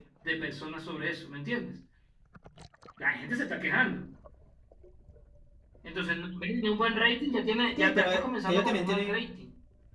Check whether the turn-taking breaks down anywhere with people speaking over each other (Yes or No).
Yes